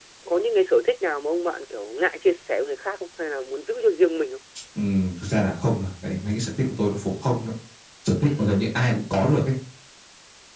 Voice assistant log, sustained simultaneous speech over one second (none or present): none